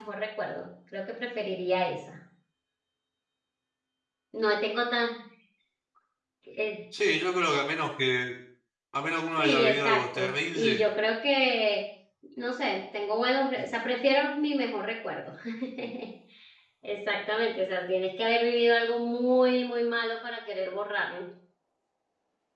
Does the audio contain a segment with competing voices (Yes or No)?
Yes